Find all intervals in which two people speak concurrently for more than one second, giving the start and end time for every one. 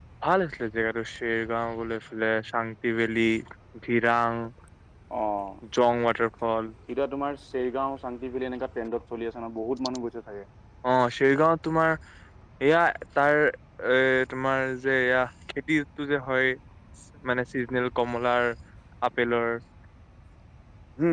none

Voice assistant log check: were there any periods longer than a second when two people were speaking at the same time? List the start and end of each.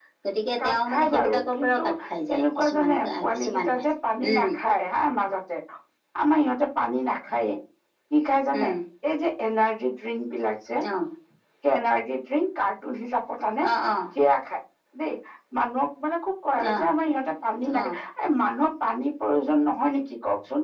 0.6-1.8, 2.3-3.8

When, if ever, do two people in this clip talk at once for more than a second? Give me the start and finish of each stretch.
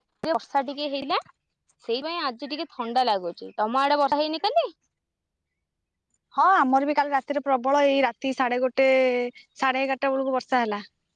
none

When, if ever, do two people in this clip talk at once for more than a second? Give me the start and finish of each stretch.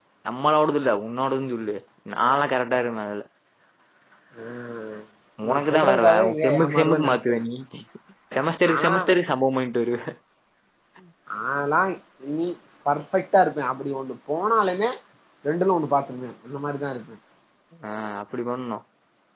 5.5-7.3

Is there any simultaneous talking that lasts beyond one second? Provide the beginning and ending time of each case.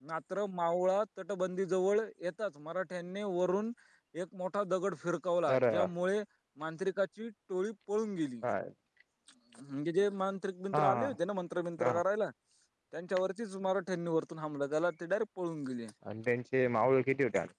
none

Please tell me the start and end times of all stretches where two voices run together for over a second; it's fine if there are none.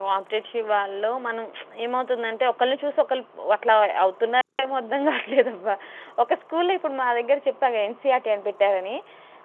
none

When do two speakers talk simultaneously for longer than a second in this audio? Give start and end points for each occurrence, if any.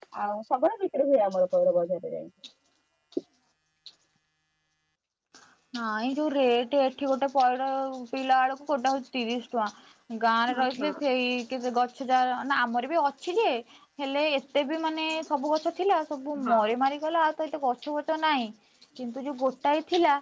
none

